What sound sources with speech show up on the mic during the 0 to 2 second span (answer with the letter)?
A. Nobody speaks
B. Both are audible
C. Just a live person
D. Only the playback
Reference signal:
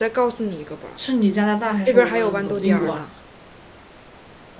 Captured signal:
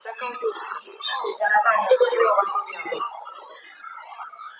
D